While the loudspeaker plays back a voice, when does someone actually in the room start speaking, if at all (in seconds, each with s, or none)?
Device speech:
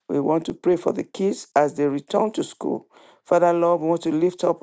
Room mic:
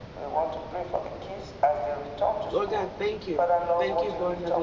2.5 s